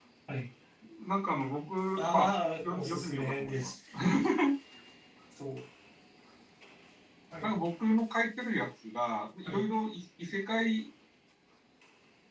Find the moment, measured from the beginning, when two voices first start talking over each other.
2.0 s

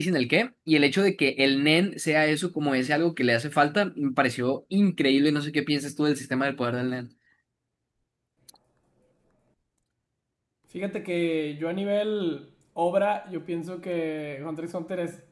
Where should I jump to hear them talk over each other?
none

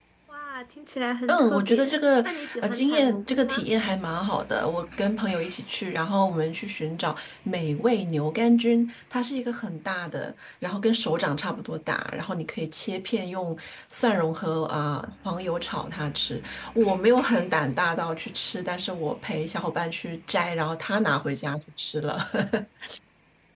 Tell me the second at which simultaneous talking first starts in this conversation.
1.3 s

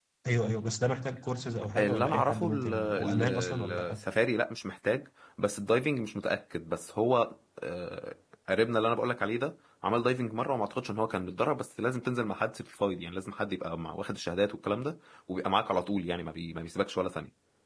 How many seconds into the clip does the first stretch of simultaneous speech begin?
1.8 s

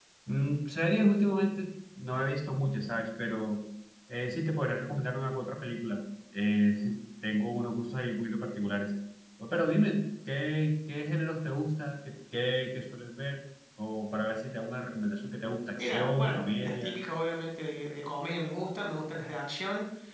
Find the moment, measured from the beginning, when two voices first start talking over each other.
15.8 s

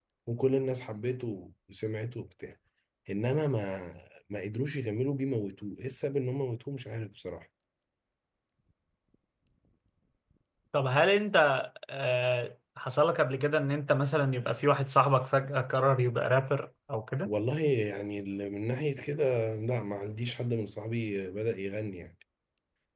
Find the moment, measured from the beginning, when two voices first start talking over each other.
none

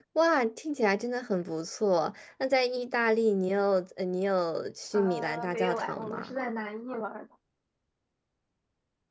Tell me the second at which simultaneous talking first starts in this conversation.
4.9 s

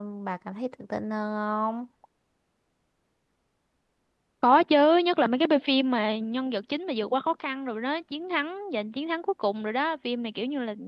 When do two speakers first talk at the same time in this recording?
none

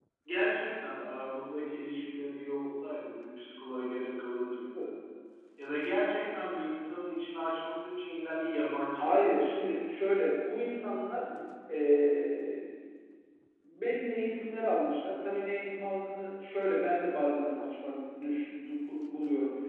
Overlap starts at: 8.9 s

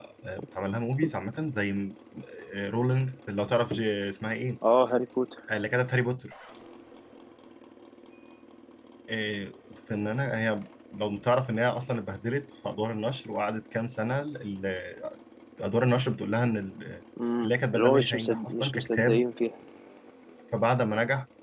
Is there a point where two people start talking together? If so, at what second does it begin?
17.4 s

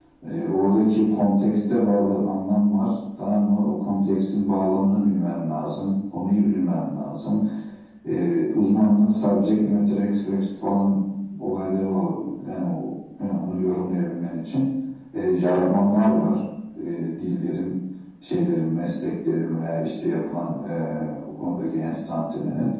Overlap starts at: none

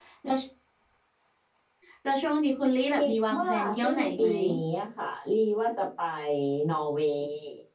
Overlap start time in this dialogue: 2.9 s

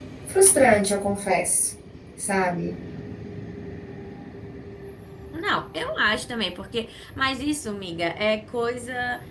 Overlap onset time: none

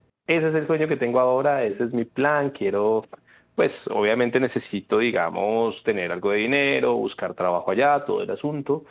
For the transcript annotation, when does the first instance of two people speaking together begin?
none

